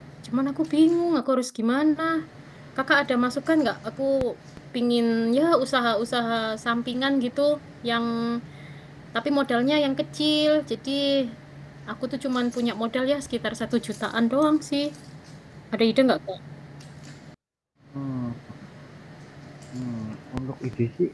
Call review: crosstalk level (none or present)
none